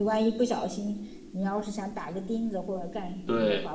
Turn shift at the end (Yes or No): No